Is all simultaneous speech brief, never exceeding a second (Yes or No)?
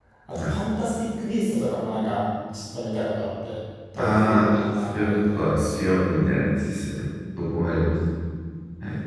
No